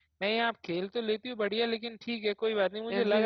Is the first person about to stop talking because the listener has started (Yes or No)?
No